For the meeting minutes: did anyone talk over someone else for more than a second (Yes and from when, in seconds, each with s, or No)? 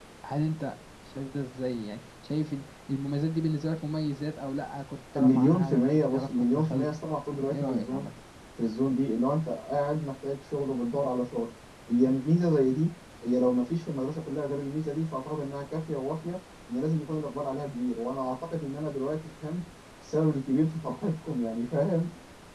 Yes, from 5.1 s